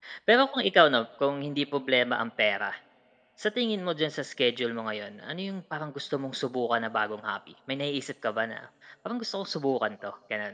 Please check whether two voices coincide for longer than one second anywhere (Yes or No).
No